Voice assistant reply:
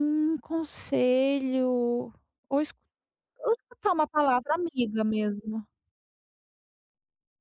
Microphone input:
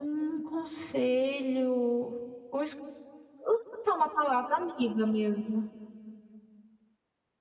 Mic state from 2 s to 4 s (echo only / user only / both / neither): echo only